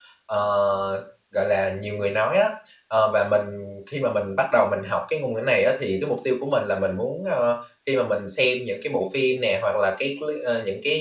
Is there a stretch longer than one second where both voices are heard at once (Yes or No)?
No